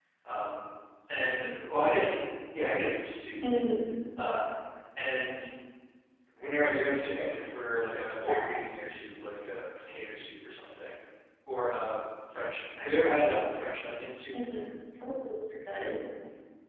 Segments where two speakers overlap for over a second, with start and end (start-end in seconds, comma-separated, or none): none